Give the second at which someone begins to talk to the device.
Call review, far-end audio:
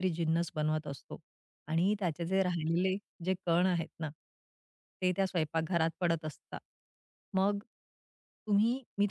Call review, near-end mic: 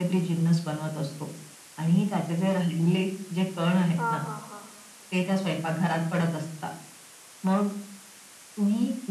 4 s

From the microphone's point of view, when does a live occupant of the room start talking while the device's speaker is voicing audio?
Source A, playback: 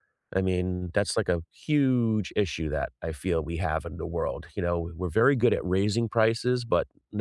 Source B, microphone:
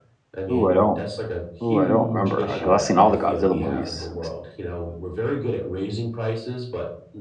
1 s

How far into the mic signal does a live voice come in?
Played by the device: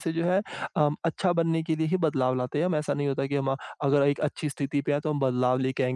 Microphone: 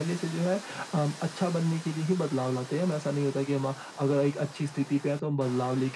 none

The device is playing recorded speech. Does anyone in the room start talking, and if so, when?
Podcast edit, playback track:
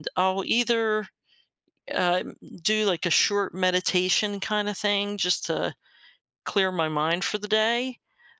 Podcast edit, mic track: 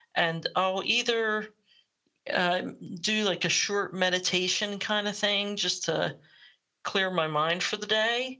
none

